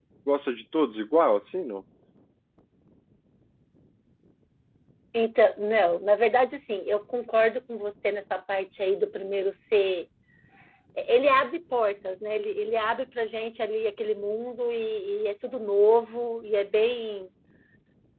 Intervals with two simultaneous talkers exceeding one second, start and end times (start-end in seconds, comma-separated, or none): none